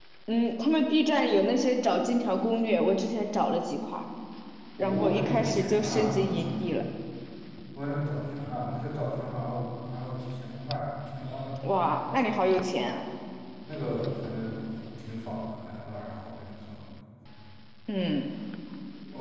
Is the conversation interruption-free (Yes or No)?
No